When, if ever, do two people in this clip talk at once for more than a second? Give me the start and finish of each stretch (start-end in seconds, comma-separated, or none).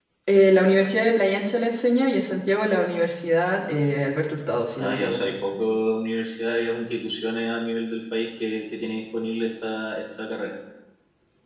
none